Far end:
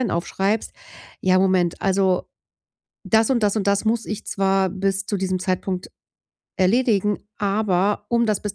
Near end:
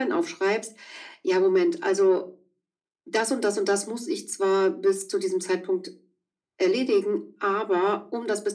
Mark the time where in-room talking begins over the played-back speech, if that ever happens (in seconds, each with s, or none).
none